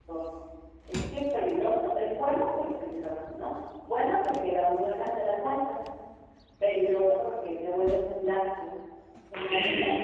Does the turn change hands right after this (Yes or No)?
Yes